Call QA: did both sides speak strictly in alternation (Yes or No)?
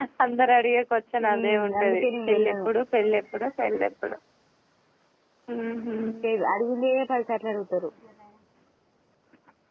No